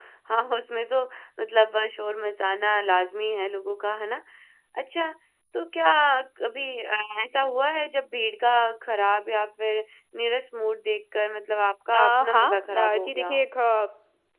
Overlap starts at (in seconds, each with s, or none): 11.9 s